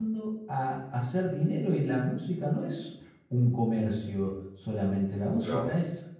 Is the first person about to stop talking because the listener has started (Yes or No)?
No